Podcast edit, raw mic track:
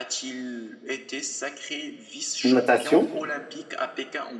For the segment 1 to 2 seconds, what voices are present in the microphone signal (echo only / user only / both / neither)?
echo only